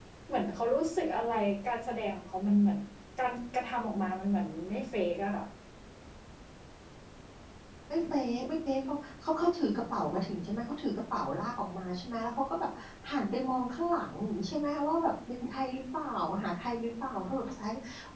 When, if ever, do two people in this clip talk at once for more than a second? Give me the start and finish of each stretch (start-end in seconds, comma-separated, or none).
none